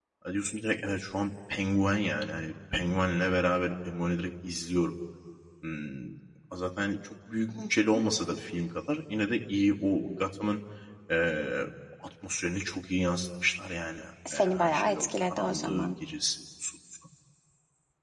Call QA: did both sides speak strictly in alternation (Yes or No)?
No